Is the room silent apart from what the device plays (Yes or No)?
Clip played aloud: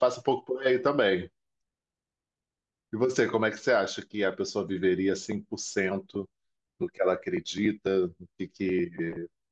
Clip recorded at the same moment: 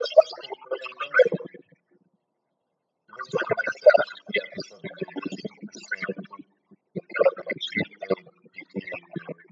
Yes